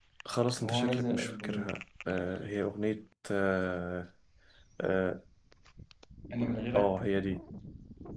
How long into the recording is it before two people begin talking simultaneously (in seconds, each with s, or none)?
0.6 s